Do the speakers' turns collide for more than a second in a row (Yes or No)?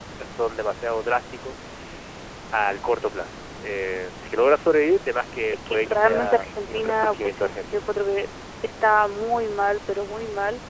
Yes